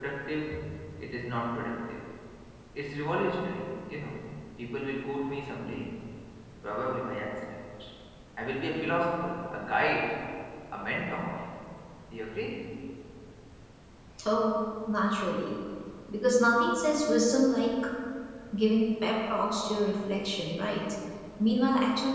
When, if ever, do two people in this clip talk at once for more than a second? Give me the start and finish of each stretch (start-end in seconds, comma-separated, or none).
none